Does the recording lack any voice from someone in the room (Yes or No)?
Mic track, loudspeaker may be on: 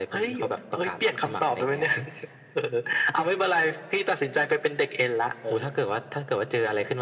Yes